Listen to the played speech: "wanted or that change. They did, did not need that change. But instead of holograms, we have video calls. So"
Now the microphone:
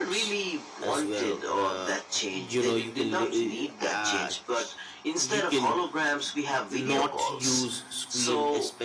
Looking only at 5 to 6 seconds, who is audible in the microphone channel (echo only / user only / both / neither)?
both